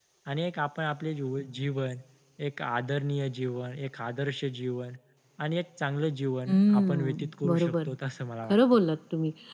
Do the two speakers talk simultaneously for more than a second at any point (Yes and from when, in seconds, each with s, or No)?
Yes, from 6.5 s